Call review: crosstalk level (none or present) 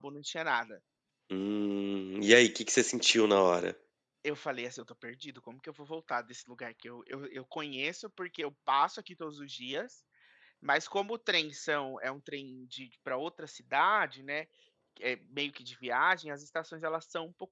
none